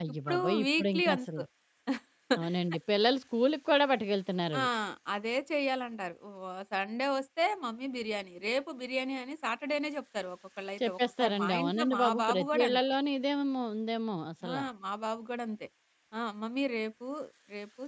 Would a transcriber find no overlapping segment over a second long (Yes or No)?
No